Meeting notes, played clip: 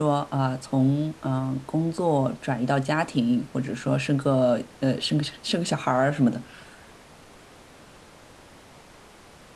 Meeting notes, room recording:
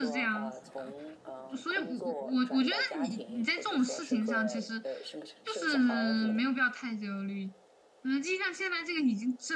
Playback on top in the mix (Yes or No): No